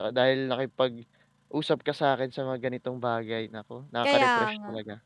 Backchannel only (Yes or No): No